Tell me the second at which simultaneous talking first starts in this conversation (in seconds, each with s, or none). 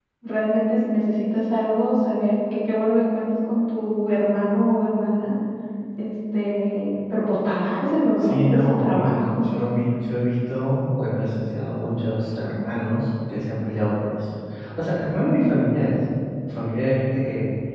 8.2 s